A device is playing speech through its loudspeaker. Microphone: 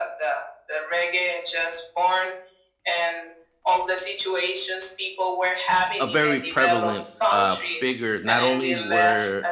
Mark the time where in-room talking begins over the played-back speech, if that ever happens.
6.0 s

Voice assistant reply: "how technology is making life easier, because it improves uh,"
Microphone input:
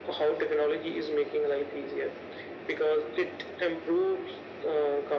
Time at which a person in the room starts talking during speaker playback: none

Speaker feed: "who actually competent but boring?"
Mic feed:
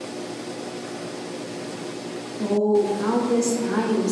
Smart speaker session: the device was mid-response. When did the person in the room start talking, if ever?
2.4 s

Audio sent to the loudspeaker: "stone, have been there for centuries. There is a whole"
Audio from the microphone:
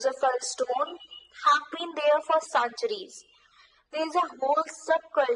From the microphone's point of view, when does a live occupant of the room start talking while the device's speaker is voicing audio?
none

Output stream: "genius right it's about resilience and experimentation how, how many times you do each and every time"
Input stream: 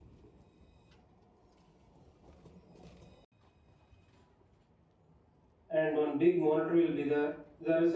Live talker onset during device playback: 5.7 s

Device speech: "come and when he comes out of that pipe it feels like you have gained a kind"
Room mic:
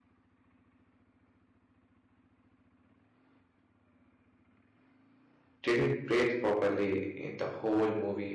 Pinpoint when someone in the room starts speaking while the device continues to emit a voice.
5.6 s

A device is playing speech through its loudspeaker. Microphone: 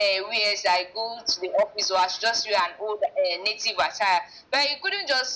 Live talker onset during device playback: none

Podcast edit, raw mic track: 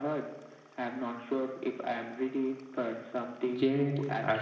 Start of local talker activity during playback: 3.5 s

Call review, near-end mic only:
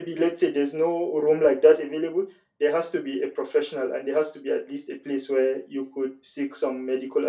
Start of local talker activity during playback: none

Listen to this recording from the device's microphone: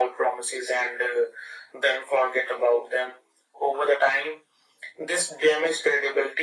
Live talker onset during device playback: none

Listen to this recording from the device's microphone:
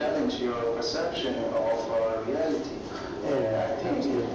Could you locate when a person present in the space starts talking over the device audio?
3.2 s

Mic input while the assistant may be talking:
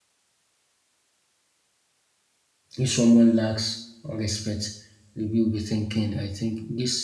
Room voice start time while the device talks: 2.8 s

